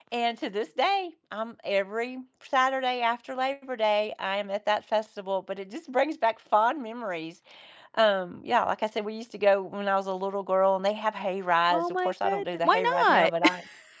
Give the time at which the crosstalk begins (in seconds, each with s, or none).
11.7 s